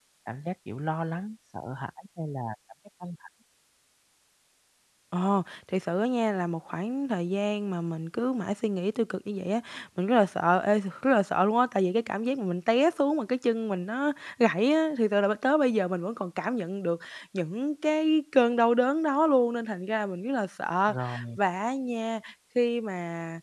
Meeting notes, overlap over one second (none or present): none